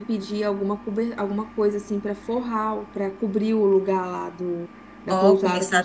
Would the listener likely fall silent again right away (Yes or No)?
No